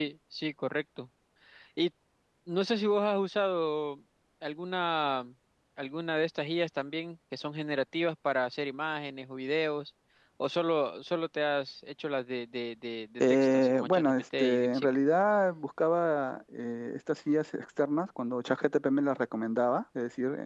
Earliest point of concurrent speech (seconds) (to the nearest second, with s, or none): 13 s